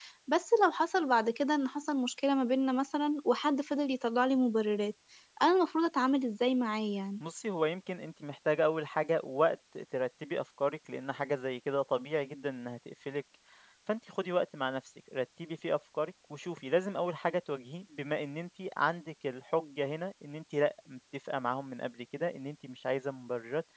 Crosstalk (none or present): none